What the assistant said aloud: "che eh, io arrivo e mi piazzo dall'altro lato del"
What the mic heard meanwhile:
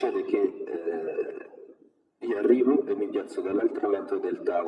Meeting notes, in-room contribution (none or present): none